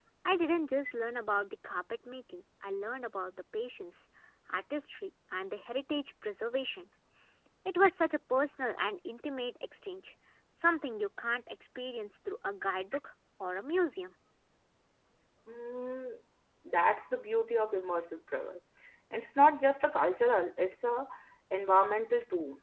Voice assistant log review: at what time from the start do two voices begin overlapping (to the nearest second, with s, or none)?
none